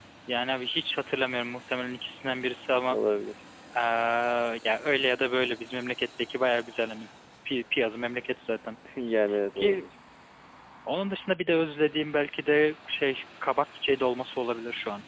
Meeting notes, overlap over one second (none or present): none